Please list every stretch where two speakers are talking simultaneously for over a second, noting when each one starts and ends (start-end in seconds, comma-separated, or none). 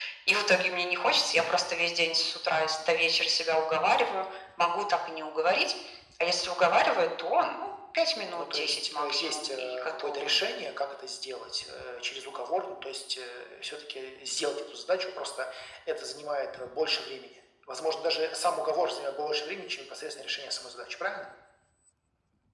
8.3-10.3